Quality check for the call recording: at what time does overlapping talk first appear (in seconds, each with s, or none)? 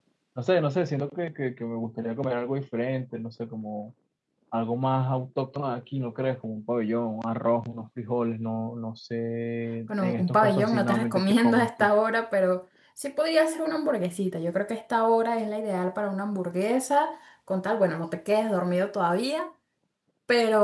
9.9 s